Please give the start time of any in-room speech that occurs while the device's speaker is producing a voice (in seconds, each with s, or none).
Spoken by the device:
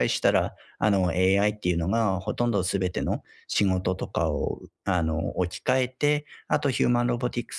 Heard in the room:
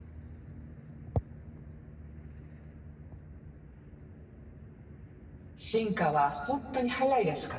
5.5 s